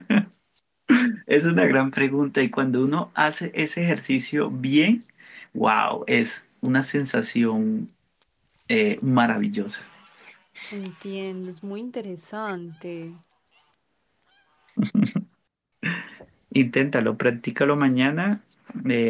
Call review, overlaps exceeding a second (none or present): none